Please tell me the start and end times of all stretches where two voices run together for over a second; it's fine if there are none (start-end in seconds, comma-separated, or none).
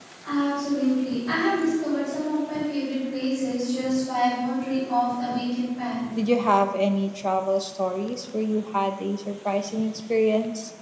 none